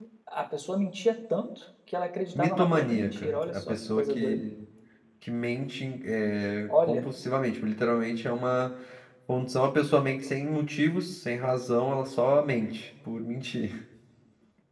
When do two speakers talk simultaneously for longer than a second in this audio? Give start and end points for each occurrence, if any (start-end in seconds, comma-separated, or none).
2.4-4.4